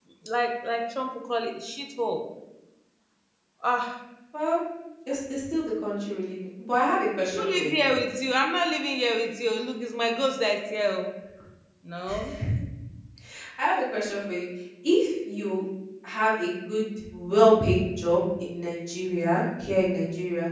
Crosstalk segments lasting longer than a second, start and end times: none

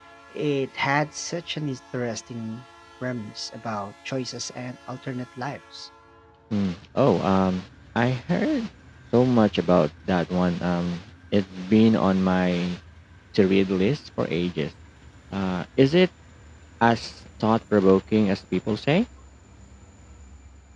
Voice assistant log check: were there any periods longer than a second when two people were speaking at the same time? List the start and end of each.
none

